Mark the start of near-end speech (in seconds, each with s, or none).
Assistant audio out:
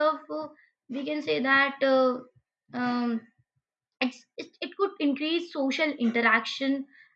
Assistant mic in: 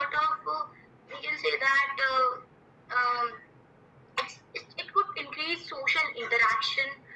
none